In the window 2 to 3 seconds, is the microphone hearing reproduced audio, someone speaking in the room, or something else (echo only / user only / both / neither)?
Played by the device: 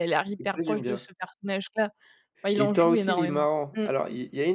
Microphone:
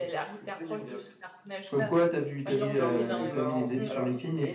both